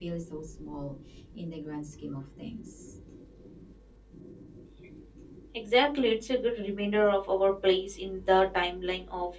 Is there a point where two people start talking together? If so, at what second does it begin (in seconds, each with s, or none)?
none